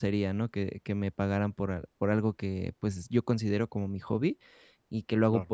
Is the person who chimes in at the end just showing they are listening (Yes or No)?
Yes